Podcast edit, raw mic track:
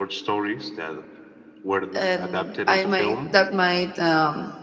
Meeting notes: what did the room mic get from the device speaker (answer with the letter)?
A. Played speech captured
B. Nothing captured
A